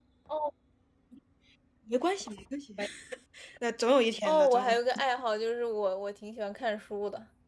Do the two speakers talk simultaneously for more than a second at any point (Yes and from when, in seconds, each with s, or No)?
No